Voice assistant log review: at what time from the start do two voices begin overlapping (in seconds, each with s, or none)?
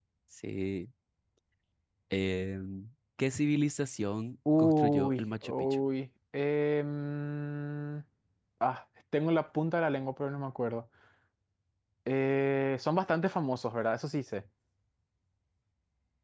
4.5 s